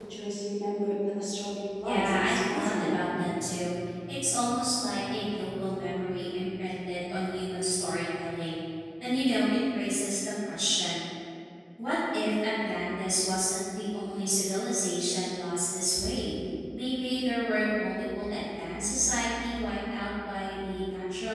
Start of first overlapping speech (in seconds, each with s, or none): 1.8 s